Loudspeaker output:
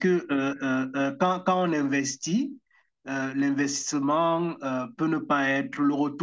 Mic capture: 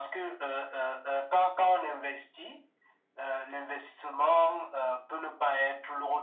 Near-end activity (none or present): none